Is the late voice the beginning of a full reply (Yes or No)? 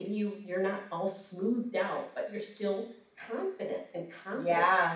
Yes